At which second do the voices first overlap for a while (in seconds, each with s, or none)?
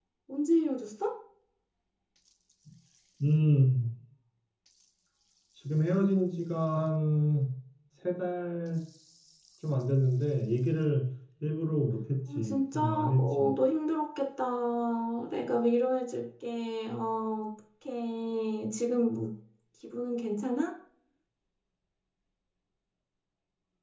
12.3 s